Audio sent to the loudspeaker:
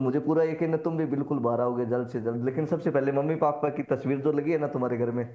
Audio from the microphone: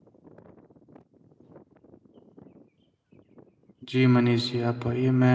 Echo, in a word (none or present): none